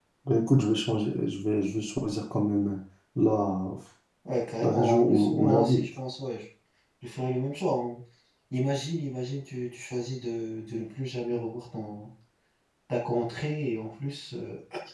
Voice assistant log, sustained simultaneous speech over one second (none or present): present